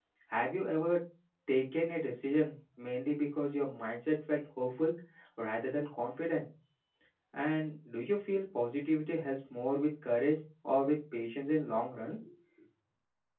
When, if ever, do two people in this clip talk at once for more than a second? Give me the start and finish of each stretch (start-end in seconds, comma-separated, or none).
none